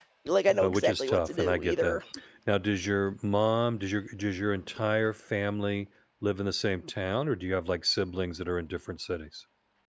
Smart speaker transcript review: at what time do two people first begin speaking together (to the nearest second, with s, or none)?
1 s